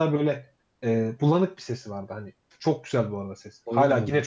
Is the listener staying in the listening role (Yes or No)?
Yes